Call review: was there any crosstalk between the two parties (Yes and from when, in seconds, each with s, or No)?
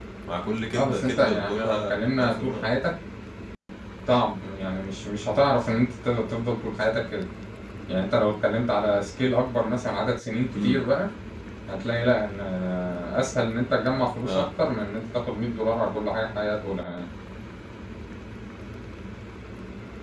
Yes, from 0.7 s